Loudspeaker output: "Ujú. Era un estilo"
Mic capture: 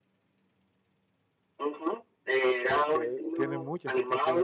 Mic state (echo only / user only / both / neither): both